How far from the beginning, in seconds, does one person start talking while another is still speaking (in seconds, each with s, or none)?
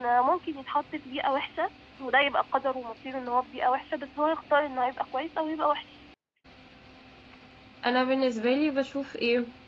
none